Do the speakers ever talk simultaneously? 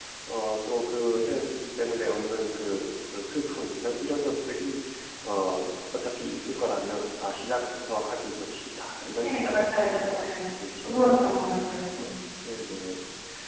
Yes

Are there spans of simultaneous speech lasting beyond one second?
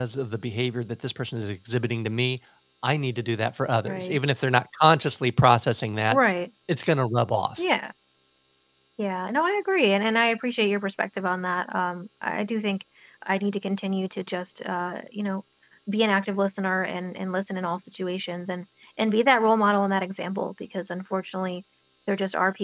No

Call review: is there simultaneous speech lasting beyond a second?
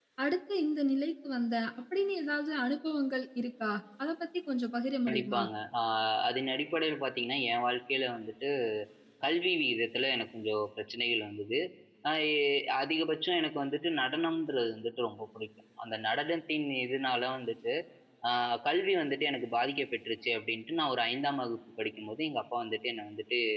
No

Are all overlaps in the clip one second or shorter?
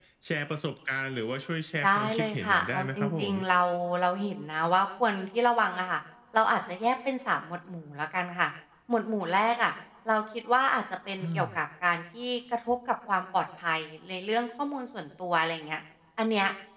No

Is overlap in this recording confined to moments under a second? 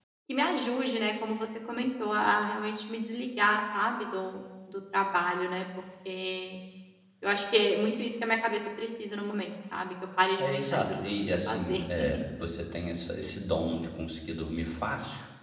No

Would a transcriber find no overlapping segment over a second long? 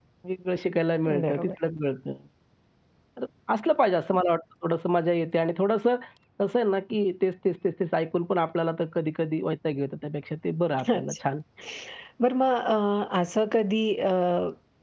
Yes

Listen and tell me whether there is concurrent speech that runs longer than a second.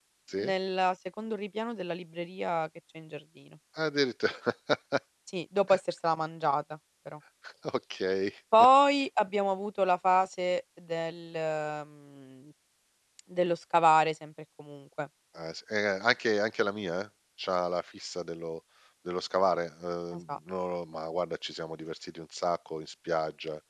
No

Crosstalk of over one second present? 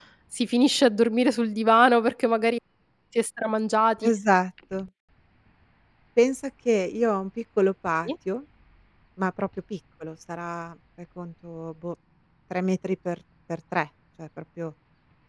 No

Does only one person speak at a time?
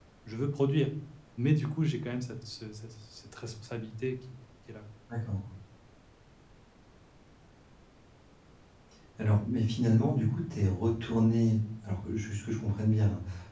Yes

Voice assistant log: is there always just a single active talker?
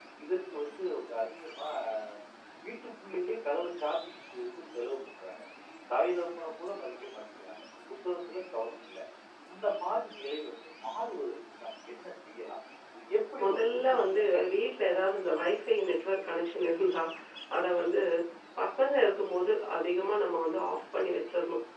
No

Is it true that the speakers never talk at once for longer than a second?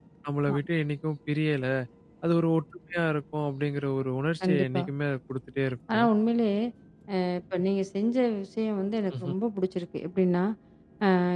Yes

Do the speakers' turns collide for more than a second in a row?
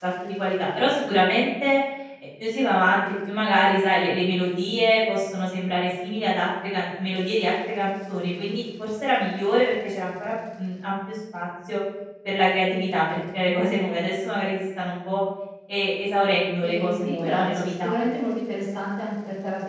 Yes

